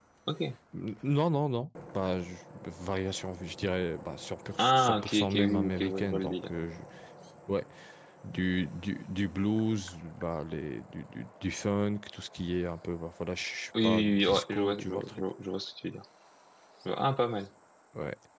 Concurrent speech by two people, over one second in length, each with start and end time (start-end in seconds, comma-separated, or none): 4.6-6.5, 13.8-15.2